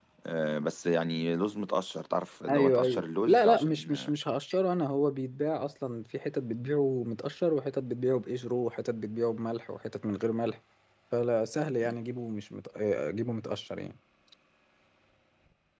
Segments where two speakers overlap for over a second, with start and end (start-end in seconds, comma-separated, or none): 2.5-3.9